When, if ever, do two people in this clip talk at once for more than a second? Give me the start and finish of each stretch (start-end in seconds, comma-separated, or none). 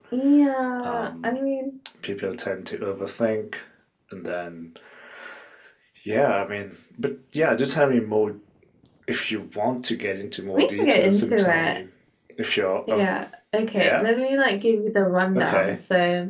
10.5-11.8